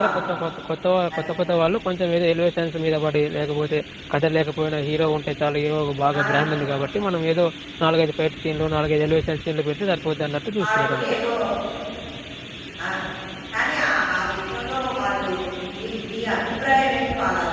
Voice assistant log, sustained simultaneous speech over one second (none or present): none